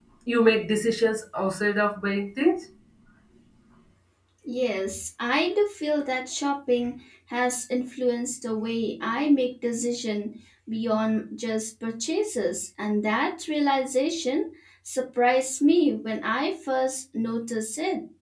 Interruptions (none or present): none